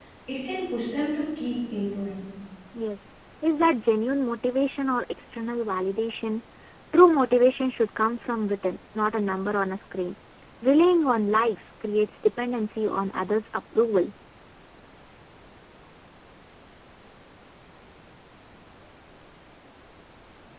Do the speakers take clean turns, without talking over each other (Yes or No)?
Yes